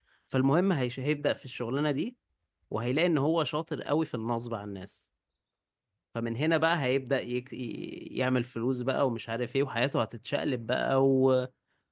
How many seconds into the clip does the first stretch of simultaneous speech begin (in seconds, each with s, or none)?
none